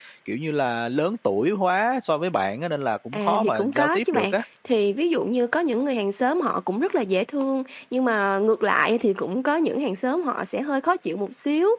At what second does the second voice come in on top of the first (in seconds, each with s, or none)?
3.1 s